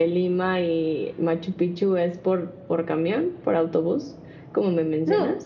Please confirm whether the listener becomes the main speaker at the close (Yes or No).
Yes